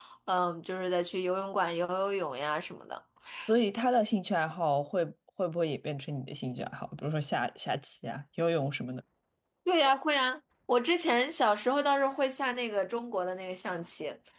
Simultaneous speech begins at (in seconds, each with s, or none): none